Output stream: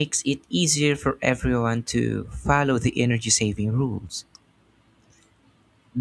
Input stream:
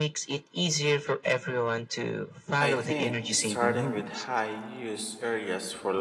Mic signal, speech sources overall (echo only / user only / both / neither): both